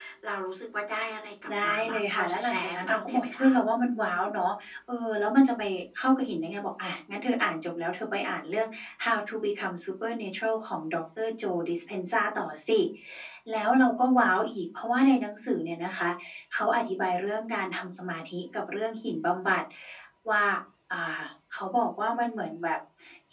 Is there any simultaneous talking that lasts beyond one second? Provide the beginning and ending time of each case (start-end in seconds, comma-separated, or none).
1.7-3.6